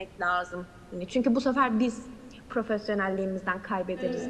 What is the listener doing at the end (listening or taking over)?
taking over